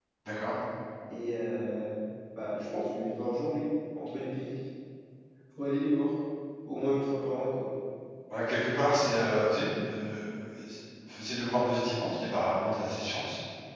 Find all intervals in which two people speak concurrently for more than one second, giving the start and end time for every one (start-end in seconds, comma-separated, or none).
none